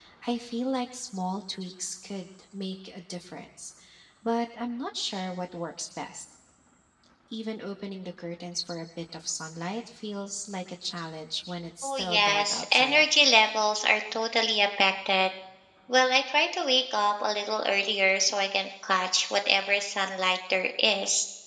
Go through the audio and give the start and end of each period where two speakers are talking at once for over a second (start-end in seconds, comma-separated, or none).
11.8-13.0